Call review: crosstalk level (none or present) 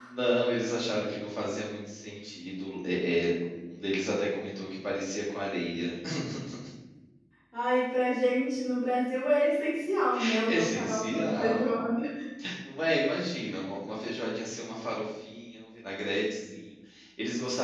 present